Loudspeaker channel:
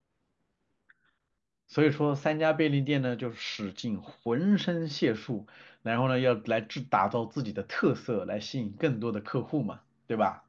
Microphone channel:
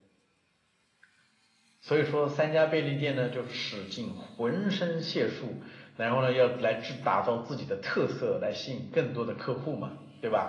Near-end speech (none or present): none